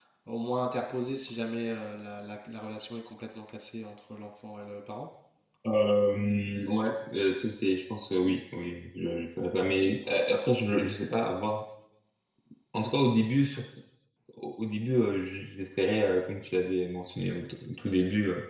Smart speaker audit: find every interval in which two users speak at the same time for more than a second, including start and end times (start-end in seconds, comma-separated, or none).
none